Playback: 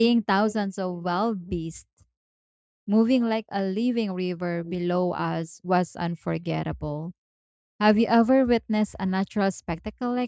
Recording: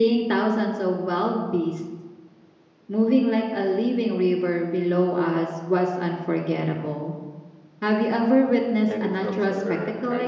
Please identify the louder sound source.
echo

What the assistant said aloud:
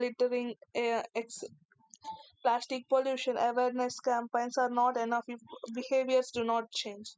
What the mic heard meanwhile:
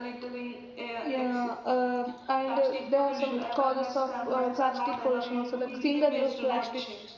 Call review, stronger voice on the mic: user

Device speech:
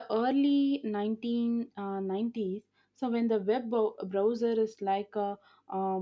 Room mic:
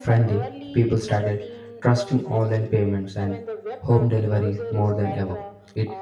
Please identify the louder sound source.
user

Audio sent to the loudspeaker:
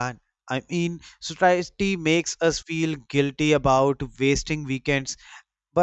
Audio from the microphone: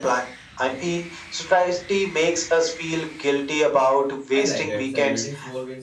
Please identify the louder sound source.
echo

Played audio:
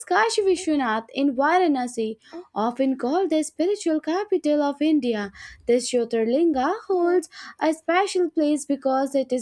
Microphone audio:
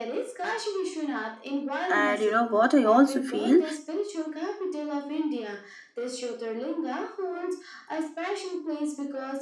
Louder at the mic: user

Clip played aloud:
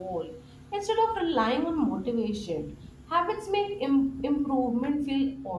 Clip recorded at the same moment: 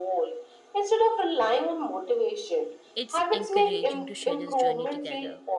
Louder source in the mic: echo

